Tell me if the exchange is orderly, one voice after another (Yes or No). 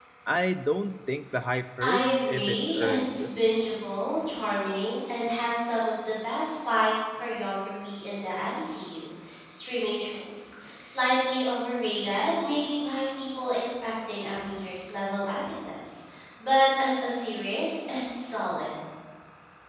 No